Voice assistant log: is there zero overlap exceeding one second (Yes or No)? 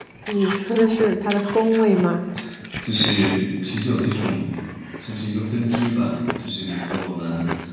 Yes